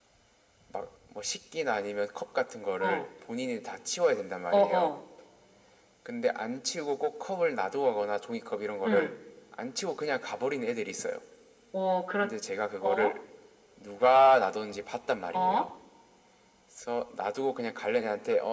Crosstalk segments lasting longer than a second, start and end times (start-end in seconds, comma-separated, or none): none